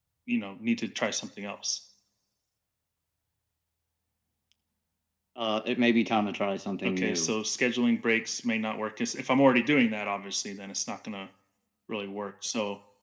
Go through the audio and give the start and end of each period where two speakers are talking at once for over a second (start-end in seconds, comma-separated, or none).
none